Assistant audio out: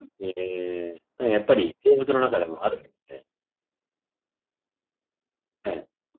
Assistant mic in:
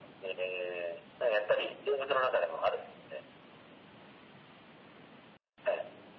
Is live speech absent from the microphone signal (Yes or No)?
Yes